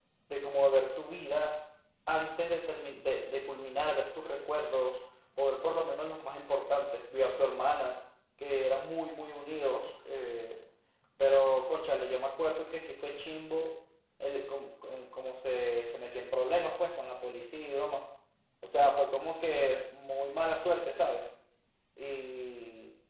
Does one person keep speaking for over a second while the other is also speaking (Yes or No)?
No